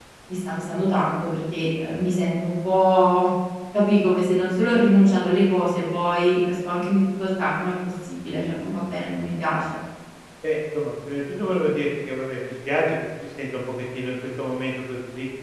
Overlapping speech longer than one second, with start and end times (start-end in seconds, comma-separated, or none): none